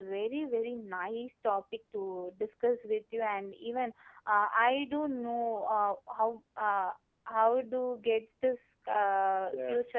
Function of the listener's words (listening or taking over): listening